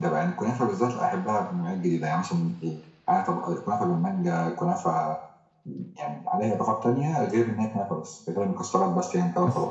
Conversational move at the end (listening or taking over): taking over